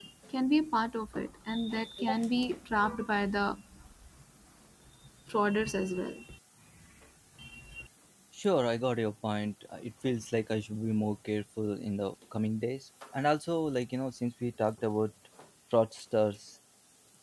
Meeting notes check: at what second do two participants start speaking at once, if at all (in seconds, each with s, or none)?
none